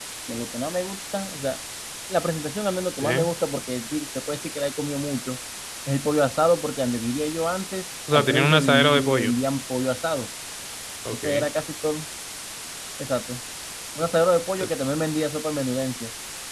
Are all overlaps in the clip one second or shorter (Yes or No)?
No